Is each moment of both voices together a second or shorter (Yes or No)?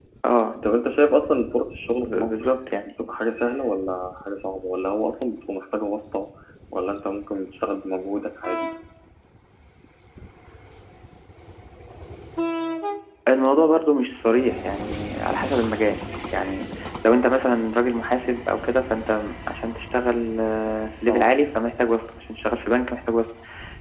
Yes